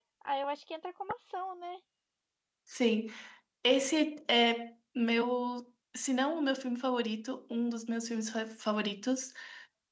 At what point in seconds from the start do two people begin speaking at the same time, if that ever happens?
none

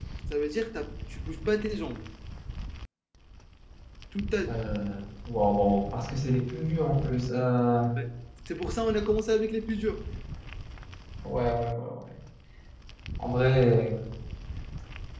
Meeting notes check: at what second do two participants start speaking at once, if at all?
none

